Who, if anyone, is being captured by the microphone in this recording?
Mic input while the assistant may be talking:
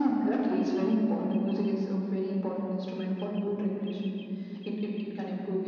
echo only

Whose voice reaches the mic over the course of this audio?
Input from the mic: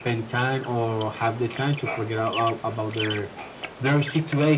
echo only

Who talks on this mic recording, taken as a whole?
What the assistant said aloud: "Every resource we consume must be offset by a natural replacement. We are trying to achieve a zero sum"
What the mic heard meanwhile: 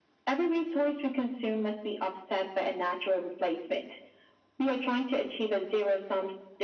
echo only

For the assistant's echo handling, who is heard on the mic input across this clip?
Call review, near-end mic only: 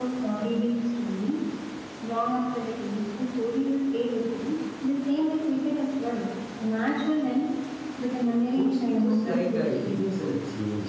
both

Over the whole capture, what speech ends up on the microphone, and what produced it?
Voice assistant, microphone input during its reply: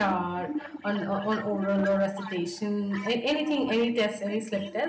both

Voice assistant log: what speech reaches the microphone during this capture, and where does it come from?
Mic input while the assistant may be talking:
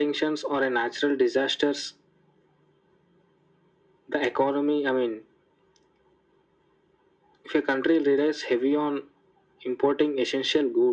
echo only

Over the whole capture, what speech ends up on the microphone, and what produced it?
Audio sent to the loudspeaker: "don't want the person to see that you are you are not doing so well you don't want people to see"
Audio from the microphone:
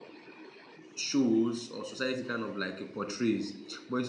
user only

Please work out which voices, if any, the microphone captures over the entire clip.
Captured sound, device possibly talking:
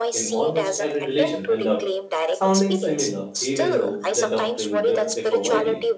both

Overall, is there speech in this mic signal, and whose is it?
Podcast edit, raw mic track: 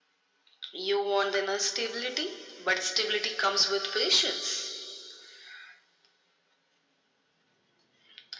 echo only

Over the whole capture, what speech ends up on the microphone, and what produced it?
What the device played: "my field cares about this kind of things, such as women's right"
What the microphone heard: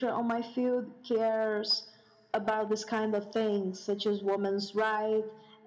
echo only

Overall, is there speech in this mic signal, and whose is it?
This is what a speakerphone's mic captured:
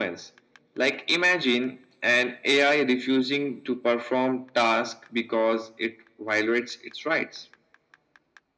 echo only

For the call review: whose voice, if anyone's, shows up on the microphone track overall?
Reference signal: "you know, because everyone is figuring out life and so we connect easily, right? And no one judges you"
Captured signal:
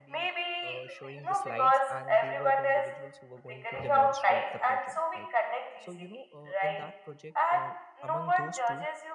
both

